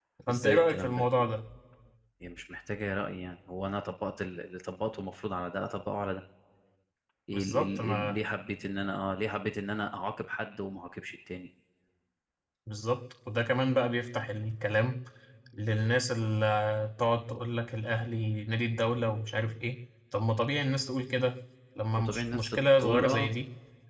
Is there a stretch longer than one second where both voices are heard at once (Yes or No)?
Yes